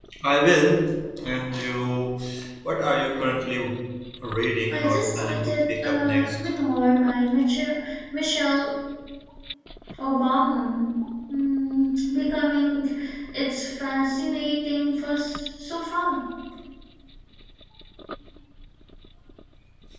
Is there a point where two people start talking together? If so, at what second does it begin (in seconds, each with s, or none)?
4.7 s